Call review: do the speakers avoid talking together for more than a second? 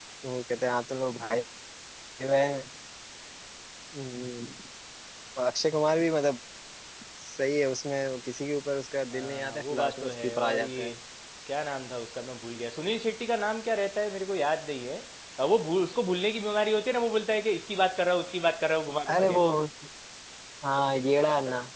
No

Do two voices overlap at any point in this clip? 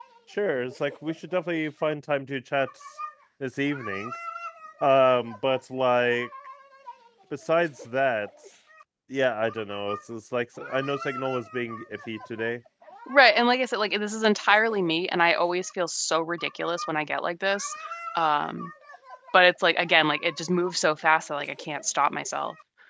No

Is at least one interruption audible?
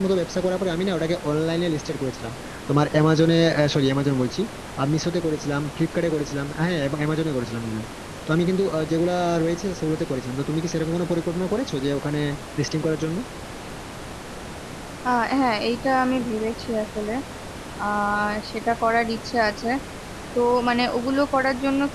No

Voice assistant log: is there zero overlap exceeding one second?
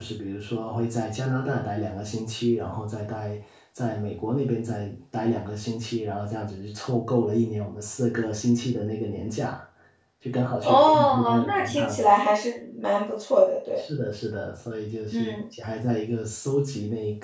No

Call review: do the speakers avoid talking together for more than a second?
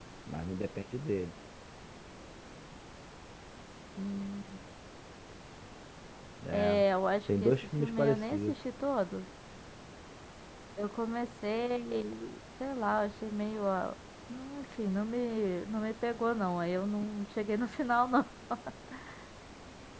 No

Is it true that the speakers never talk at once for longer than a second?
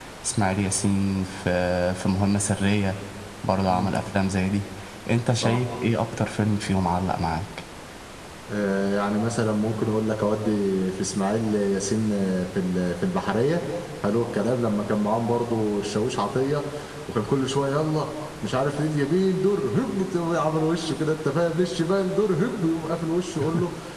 Yes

